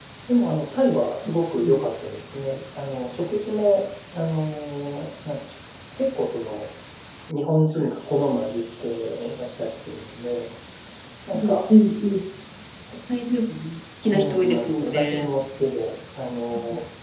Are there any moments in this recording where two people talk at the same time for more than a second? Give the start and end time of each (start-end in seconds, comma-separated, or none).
14.0-15.3